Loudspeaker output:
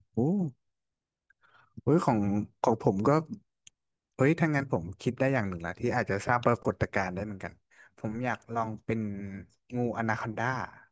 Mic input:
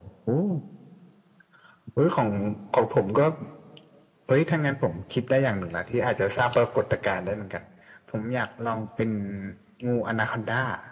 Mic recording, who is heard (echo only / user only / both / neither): echo only